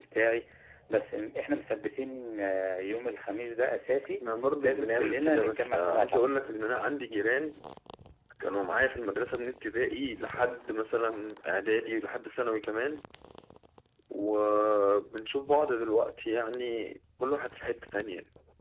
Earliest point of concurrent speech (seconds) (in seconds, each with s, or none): 4.6 s